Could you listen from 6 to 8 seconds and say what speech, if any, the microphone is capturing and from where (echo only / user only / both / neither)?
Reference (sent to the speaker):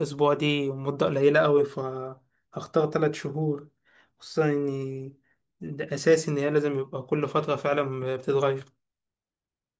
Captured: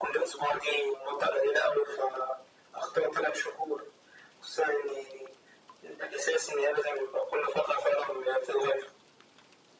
echo only